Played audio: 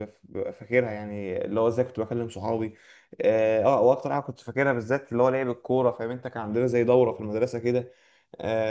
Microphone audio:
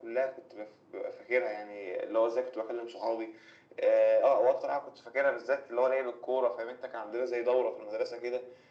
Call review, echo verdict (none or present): present